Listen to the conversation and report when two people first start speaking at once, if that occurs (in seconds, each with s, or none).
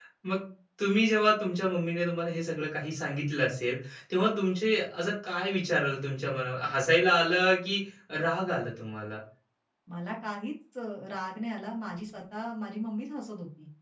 none